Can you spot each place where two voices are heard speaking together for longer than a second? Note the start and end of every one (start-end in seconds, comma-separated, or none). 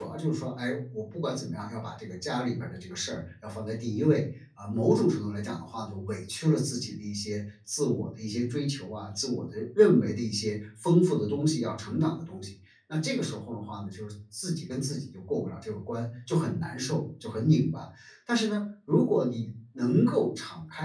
none